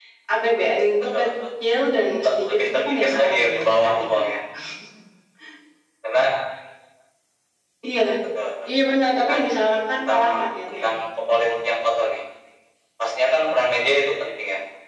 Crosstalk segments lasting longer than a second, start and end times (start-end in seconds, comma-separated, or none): 2.2-4.3